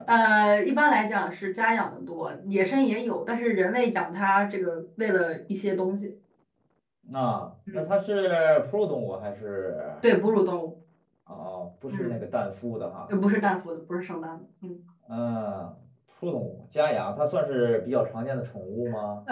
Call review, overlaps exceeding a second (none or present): none